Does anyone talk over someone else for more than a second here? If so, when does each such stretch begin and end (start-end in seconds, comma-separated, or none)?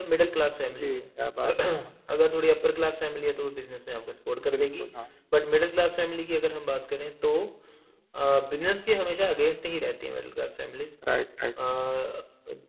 none